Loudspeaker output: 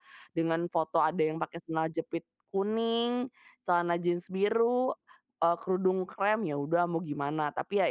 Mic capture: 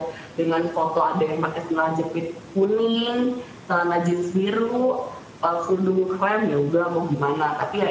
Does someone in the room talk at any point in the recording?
No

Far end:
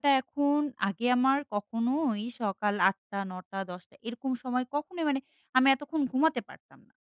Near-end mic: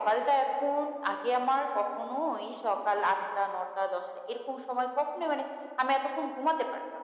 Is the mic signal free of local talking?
Yes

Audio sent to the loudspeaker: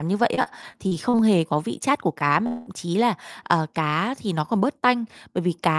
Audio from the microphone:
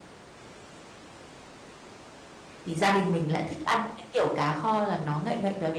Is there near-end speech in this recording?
Yes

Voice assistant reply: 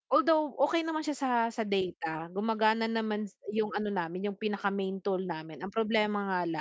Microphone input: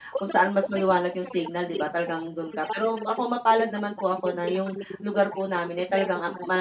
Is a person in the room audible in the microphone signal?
Yes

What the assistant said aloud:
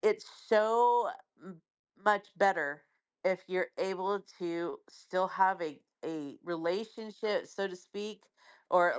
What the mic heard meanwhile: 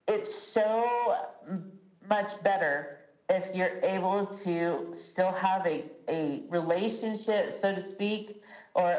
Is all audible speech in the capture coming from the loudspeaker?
Yes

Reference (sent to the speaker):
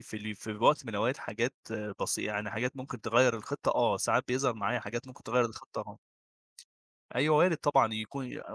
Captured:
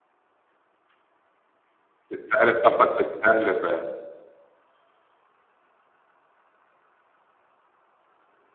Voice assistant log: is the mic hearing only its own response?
No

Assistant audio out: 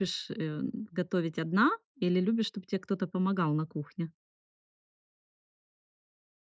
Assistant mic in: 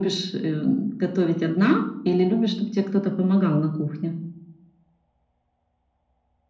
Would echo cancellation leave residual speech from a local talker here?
No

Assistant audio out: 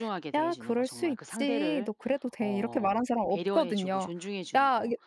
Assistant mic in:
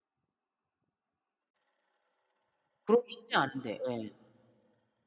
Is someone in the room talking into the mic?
Yes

